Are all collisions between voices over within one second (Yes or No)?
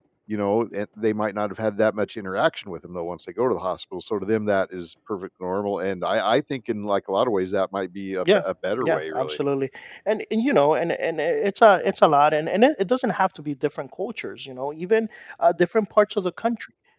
Yes